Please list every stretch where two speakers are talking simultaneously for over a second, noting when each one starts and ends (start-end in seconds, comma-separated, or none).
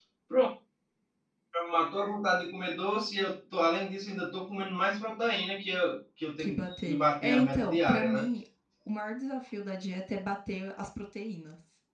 6.4-8.3